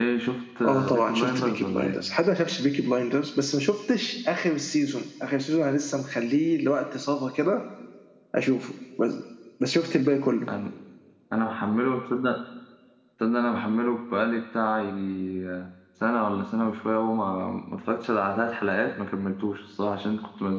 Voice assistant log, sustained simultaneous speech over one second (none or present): present